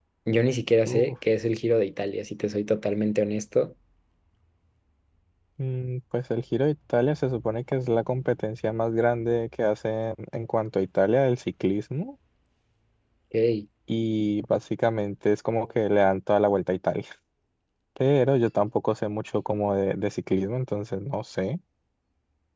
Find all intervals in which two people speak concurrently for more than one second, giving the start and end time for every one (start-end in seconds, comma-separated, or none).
none